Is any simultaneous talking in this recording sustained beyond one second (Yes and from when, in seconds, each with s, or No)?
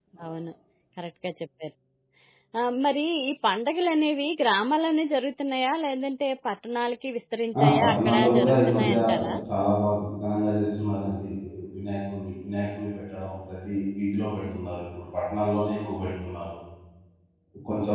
Yes, from 7.5 s